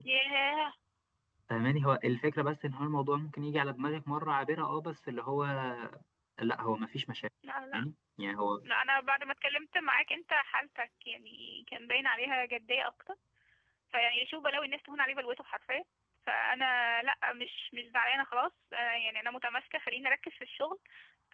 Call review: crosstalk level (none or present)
none